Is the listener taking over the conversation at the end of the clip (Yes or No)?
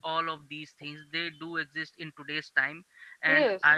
No